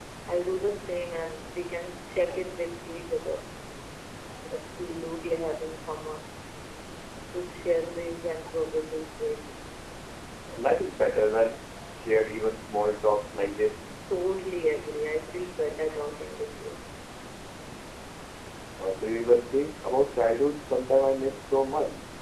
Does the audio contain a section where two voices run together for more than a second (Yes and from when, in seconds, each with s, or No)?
No